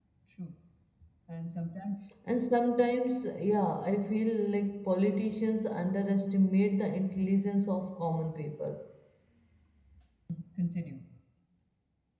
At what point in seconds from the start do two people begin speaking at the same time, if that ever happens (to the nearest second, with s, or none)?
none